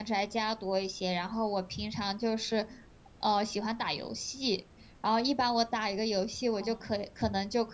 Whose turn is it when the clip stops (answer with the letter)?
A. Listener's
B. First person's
B